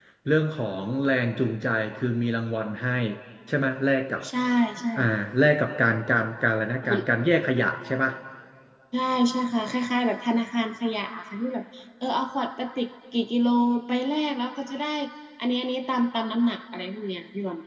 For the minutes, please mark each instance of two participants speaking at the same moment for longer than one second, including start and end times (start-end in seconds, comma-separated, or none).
none